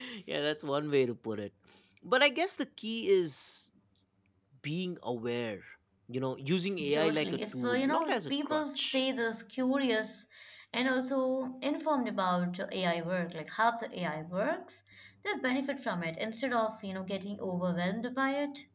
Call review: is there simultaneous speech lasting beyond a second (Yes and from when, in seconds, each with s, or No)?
Yes, from 6.9 s